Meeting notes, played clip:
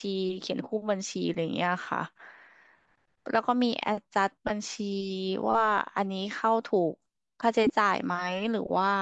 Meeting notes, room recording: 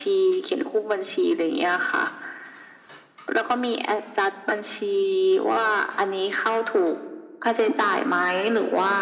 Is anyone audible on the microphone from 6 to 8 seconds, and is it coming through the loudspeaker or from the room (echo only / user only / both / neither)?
echo only